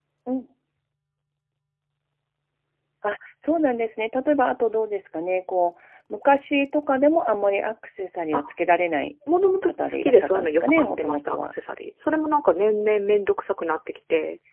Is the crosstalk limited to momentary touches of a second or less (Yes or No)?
No